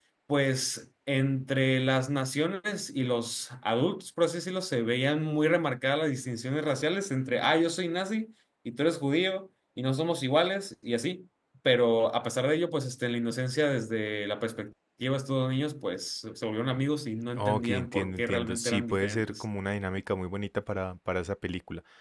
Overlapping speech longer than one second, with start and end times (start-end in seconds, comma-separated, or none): 17.4-19.4